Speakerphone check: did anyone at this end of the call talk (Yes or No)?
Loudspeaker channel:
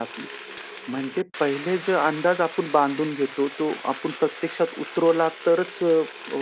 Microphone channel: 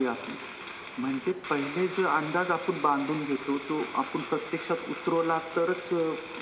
No